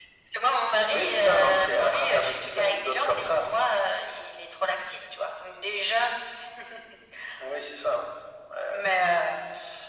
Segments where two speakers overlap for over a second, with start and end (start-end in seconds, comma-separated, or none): 0.9-3.4